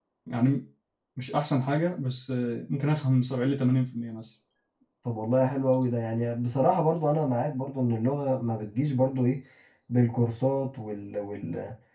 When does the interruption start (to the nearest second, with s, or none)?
none